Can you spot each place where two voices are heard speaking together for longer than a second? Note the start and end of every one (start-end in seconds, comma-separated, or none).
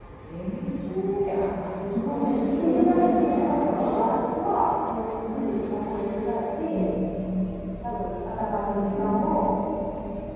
2.1-3.9